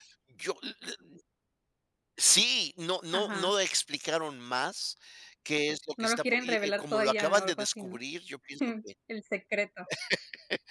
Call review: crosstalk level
present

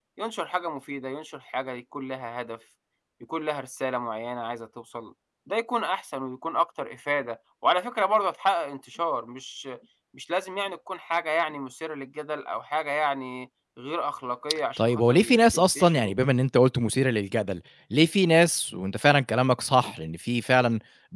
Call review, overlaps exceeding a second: present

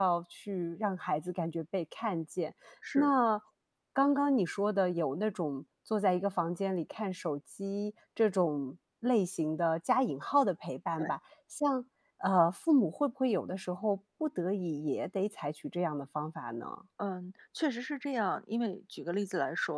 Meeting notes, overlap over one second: none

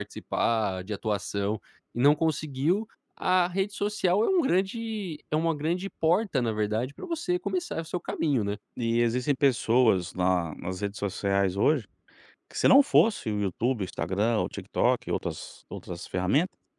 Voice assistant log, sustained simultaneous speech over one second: none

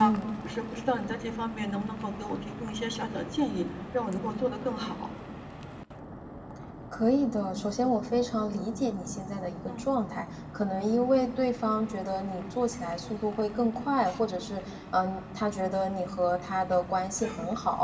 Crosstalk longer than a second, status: none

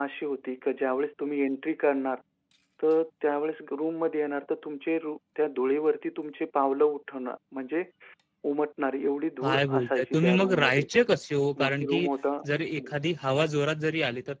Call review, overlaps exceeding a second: present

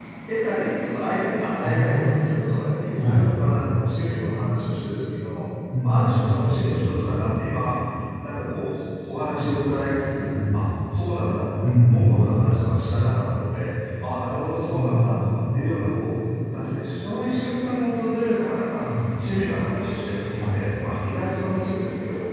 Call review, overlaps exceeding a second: present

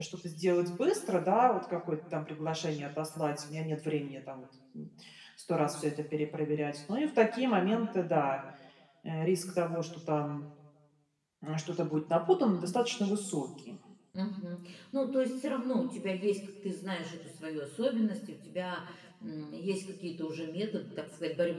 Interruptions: none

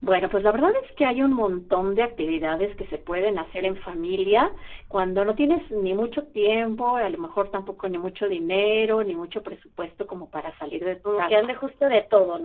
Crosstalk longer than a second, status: none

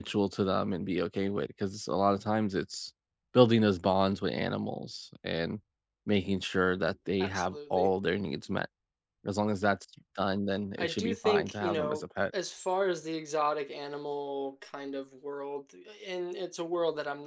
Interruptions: present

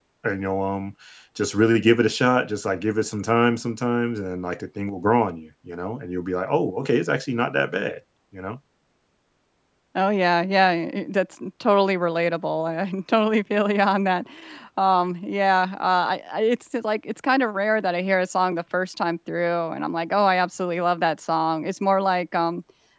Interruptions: none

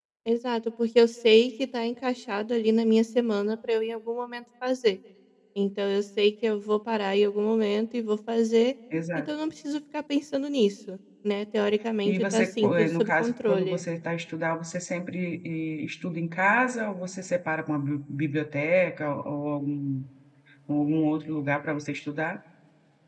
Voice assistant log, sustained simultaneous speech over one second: present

